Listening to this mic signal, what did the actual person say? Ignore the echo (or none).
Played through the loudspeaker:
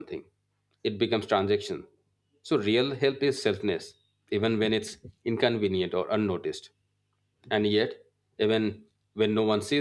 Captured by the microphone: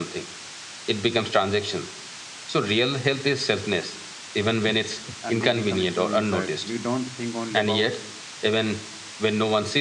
and we become strong inside, we don't think only about